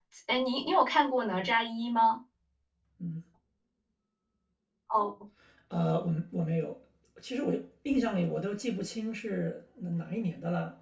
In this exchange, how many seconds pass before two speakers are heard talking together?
none

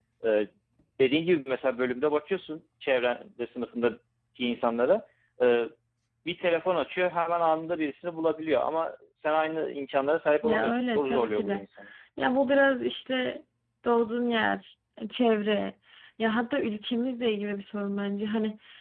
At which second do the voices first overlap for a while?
10.4 s

